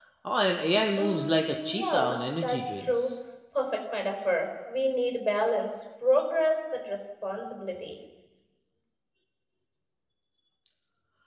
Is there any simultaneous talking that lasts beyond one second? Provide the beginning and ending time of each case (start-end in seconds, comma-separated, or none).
1.0-3.1